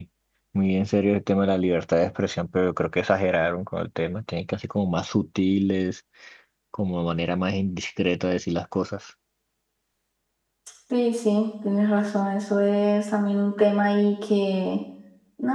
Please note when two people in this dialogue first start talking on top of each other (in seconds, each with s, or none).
none